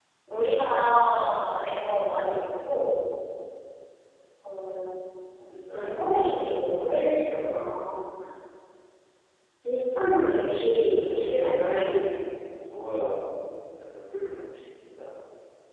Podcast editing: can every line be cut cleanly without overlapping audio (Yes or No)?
No